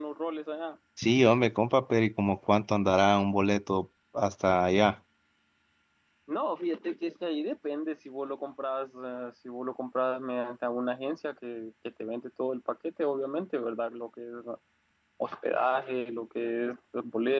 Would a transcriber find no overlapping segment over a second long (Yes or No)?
Yes